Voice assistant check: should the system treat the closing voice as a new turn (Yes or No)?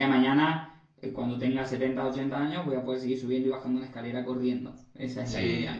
Yes